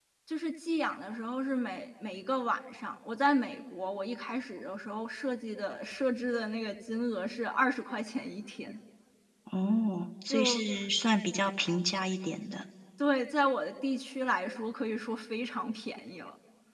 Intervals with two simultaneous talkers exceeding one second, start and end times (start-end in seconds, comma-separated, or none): none